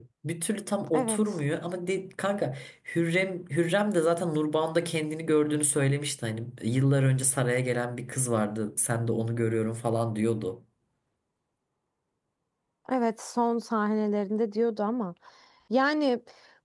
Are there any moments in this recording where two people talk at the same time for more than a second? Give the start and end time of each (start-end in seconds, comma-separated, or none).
none